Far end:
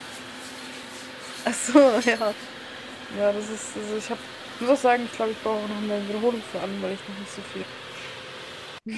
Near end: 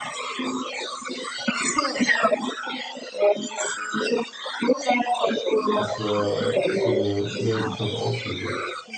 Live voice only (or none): Das wäre das wär eine sehr interessante Ausrede.